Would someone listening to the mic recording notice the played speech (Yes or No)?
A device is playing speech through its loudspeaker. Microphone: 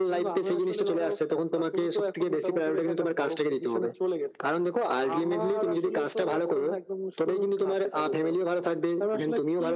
Yes